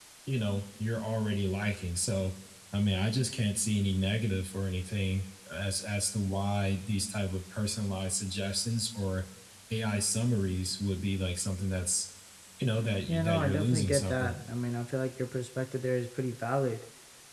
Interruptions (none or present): present